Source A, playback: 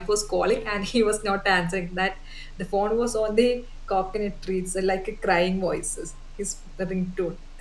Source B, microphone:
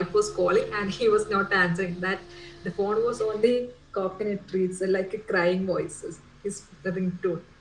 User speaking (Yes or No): No